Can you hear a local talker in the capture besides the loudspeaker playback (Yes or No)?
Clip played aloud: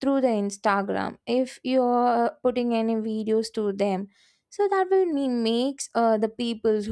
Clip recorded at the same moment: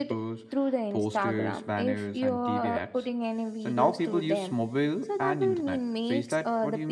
Yes